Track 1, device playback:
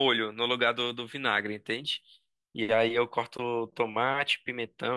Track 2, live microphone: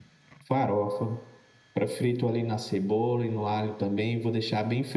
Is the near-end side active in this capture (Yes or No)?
Yes